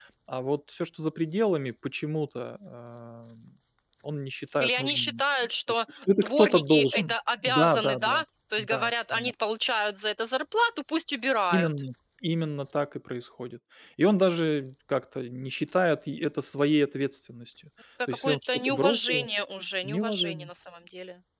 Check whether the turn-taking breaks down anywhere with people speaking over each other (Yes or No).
Yes